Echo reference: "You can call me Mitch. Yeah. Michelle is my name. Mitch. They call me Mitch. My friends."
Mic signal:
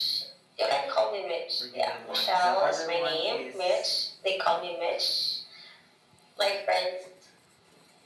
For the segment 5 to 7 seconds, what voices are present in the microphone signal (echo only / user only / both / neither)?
echo only